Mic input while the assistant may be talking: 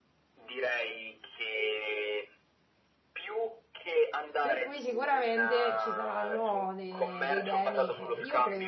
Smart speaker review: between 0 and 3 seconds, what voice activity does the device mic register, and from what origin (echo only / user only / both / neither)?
echo only